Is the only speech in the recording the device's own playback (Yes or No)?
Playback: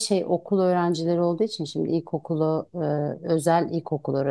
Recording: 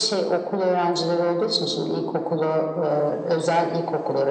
Yes